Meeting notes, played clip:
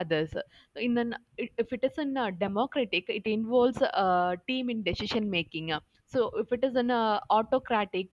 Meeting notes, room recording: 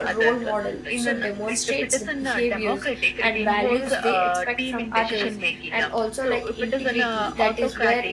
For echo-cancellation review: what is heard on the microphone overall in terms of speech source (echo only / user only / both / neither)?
both